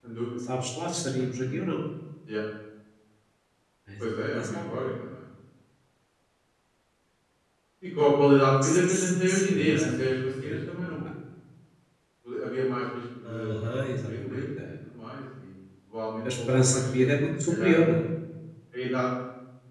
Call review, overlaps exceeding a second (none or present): present